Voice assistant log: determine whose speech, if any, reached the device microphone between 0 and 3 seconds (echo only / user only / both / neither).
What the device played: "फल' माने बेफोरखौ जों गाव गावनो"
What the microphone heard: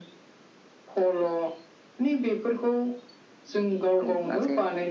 echo only